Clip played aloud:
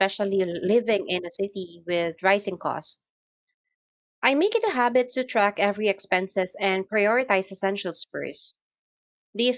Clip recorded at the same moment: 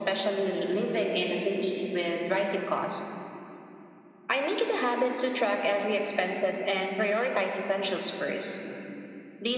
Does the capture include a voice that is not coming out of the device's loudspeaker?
No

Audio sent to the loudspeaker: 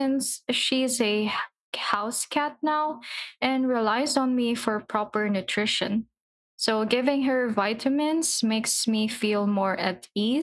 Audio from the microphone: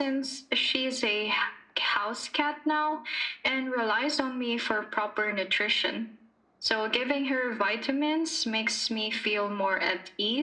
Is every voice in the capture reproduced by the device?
Yes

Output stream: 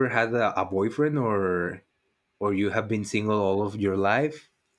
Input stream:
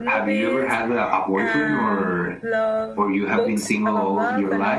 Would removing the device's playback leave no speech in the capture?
No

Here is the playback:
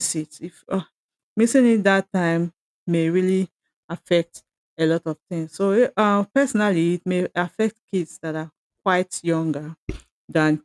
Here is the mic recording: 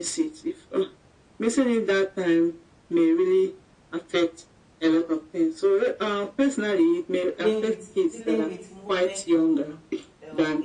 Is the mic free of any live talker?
No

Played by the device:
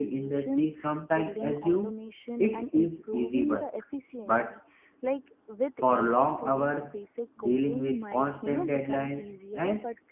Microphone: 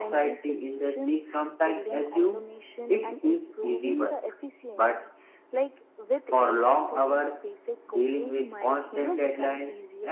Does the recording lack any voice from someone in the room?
Yes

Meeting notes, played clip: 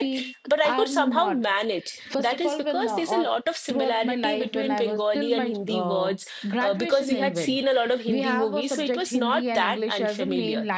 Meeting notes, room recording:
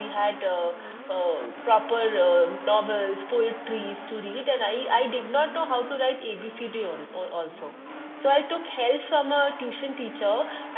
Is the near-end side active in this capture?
Yes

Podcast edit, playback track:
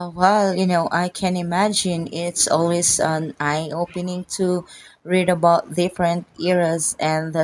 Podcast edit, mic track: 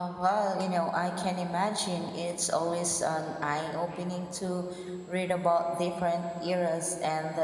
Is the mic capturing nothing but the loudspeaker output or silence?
Yes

